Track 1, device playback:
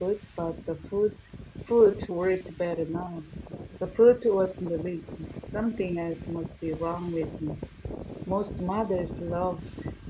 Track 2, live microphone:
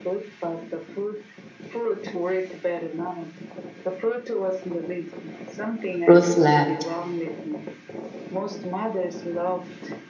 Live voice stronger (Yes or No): Yes